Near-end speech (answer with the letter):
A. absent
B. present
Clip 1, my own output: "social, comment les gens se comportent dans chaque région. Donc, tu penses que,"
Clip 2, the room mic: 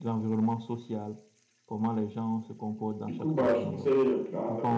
B